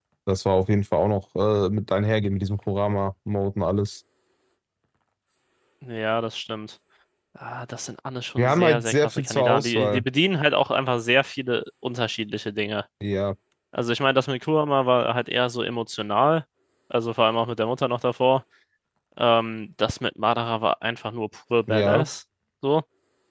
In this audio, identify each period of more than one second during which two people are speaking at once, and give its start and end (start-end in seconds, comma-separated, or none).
8.4-10.0